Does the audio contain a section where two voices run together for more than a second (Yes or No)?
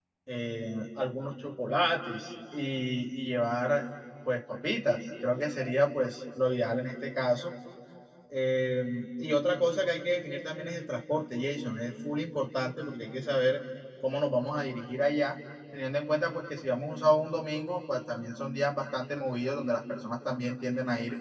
No